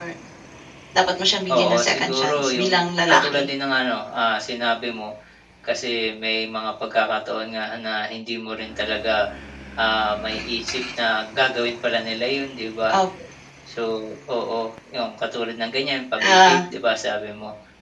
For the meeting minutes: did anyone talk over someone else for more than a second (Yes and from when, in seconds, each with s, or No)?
Yes, from 1.5 s